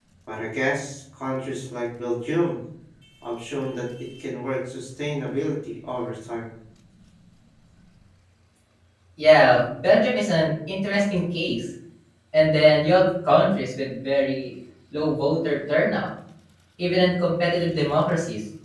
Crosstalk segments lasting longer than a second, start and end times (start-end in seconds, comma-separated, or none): none